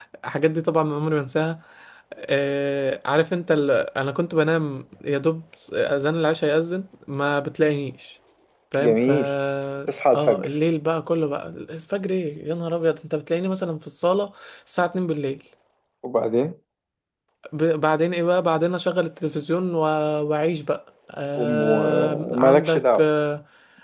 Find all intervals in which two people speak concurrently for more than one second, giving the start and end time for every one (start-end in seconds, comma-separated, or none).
21.4-23.1